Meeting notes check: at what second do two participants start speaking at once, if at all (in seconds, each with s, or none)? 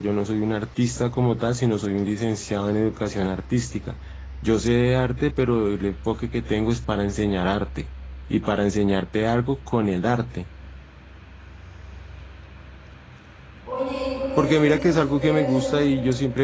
14.4 s